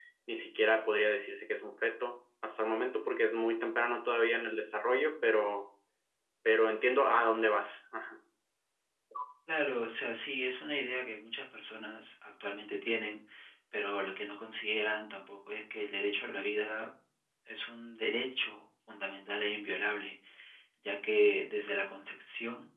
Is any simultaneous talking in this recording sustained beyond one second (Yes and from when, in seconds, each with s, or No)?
No